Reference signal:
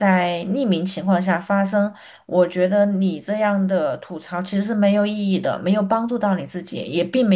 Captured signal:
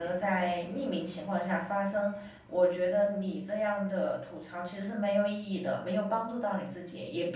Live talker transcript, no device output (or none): none